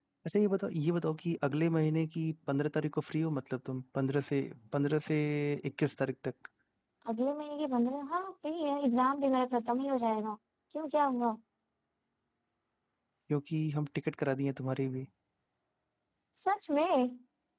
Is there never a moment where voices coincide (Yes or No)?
Yes